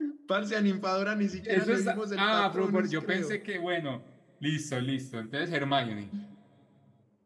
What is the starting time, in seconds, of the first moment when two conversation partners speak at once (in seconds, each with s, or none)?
1.3 s